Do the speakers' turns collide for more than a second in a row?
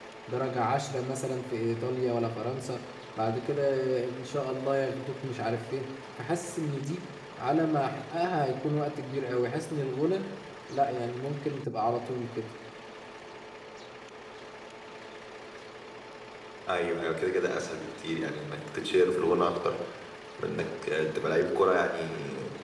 No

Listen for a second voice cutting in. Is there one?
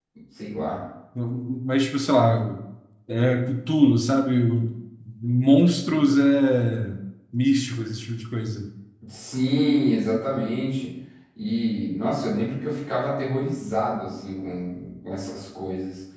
No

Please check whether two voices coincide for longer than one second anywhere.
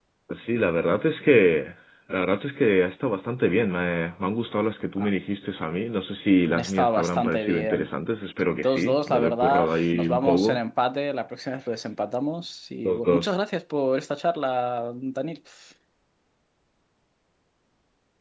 Yes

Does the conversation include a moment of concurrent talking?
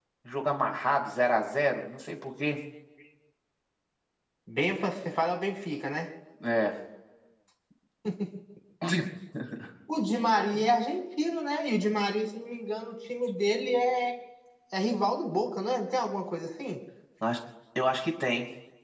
No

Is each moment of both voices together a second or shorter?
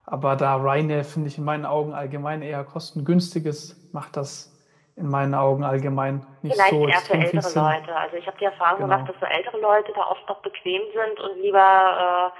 No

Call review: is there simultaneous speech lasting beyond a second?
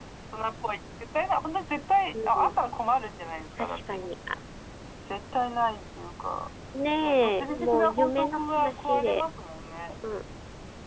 Yes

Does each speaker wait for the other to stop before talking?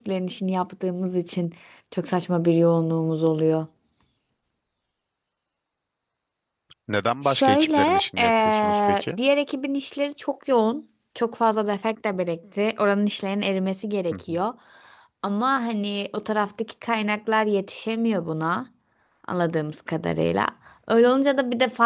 No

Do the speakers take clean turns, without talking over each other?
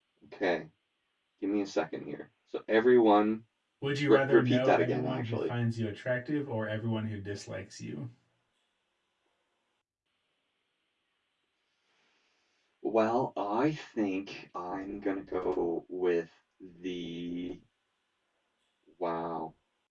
No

